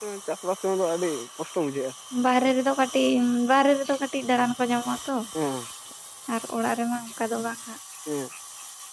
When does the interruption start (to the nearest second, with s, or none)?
none